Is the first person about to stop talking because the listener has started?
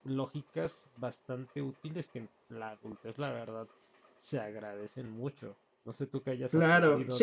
Yes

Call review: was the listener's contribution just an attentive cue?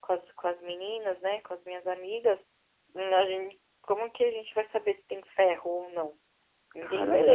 No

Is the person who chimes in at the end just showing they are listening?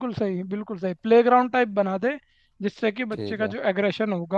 Yes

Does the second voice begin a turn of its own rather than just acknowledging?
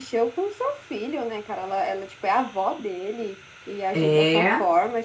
No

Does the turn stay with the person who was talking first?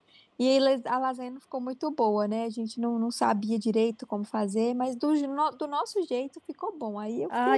No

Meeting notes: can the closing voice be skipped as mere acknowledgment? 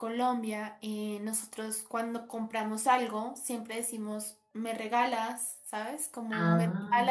Yes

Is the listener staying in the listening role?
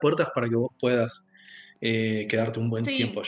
No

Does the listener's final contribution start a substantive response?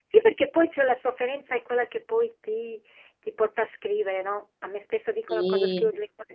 No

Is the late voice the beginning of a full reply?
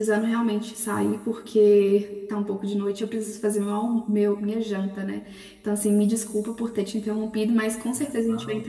No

